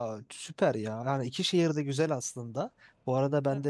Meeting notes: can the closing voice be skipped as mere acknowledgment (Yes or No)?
Yes